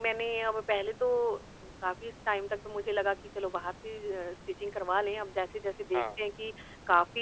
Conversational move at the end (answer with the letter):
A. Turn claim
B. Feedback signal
B